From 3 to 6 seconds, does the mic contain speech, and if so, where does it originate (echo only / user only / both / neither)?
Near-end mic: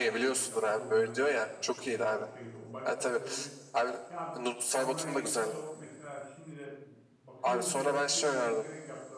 both